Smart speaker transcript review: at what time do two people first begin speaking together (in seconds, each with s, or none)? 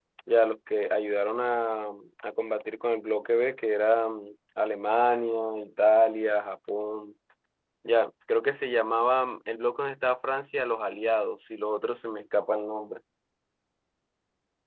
none